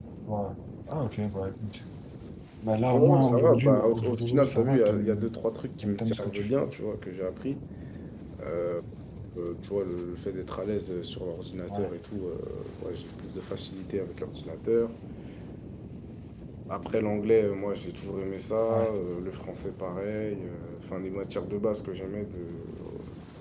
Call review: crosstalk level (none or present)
present